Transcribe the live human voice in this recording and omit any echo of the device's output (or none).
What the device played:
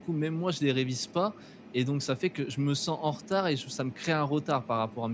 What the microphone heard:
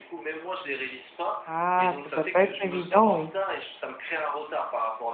Ah, ça doit pas être évident, oui.